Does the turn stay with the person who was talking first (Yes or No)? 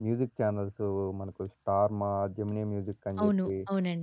No